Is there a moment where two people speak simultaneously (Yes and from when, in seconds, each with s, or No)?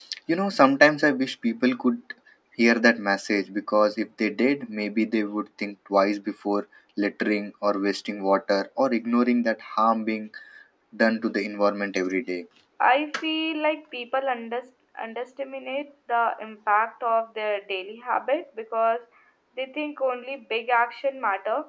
No